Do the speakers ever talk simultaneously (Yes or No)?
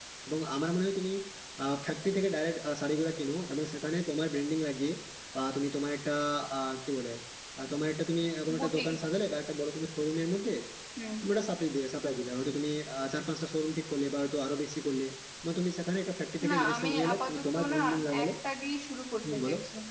Yes